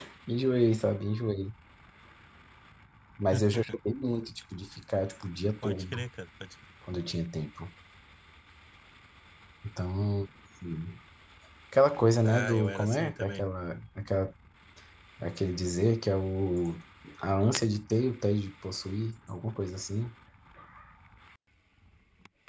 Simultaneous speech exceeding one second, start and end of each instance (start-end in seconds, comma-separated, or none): 12.2-13.4